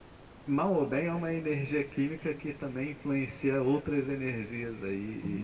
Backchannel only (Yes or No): No